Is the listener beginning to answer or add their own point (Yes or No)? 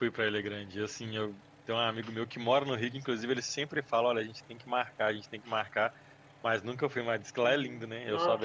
Yes